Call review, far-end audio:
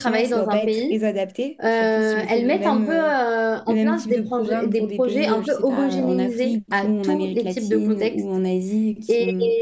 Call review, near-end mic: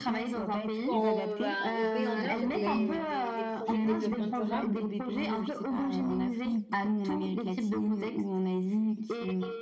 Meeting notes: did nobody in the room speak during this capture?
No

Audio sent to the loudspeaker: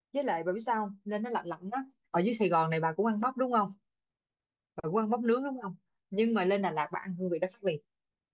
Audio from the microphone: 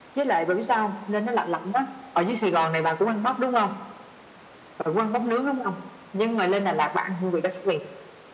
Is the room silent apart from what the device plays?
Yes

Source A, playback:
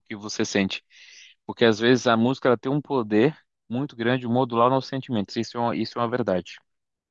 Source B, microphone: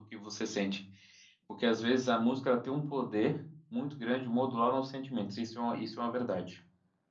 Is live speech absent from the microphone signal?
Yes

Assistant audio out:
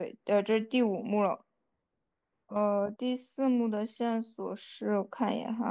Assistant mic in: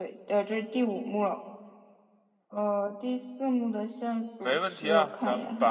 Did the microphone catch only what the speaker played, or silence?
No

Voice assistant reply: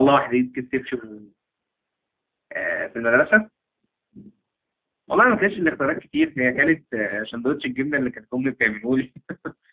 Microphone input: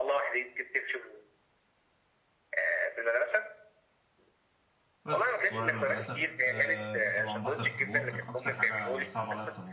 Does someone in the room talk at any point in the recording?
Yes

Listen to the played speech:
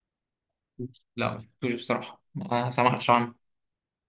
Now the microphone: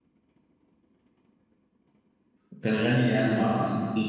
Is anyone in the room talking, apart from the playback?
Yes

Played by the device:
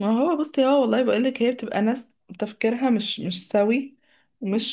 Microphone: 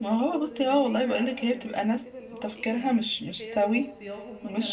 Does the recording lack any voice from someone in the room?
No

